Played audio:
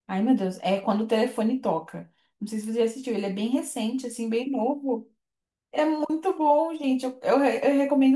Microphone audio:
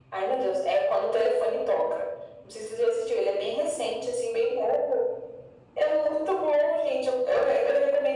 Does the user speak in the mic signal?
No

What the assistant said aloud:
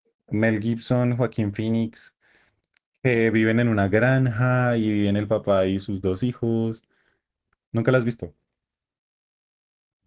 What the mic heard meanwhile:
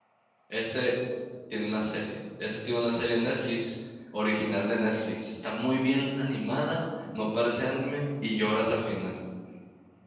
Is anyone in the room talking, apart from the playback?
Yes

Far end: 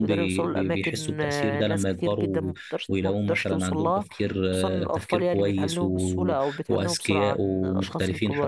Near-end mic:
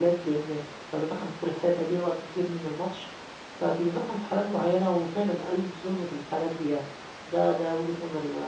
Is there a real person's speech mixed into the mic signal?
Yes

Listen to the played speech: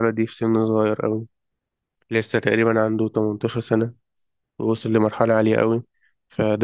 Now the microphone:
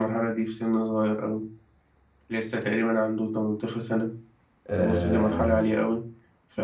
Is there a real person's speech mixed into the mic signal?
Yes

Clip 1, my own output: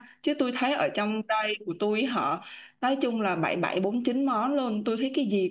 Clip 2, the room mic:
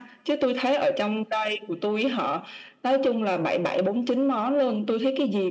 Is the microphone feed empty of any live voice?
Yes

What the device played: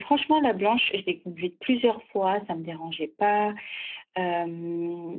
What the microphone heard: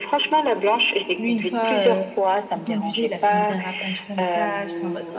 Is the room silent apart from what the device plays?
No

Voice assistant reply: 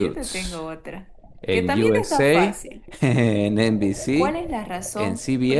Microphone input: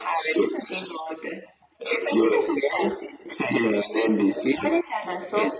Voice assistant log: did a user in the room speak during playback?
No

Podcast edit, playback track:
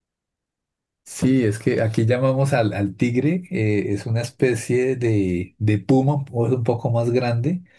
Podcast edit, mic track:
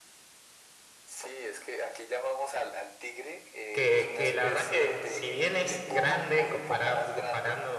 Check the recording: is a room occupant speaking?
Yes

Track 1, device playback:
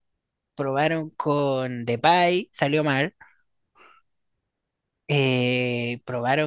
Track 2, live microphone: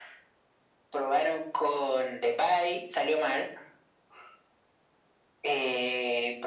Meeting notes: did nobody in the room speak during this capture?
Yes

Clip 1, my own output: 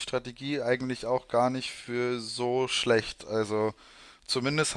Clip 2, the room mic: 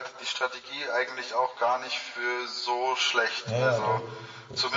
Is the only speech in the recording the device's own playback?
No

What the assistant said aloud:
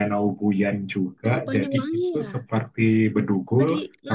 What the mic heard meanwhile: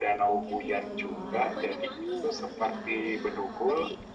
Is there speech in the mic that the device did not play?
Yes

